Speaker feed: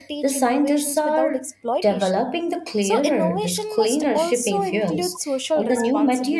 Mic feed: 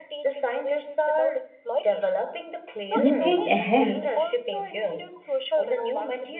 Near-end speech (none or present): present